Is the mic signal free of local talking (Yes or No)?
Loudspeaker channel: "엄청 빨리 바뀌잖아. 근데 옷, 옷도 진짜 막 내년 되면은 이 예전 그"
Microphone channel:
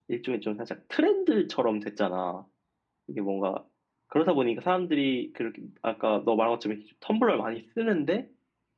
No